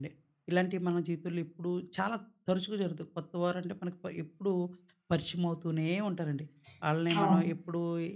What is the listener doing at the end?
listening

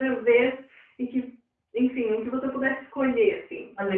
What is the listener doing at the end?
taking over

